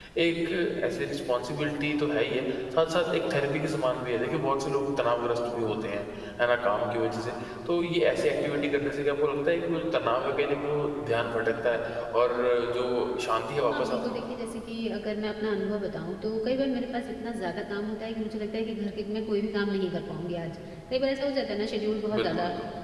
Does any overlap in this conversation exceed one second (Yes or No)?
No